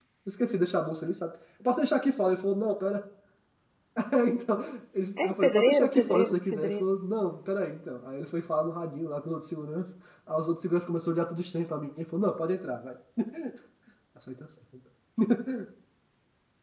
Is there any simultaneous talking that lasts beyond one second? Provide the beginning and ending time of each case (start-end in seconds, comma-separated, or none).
5.2-6.8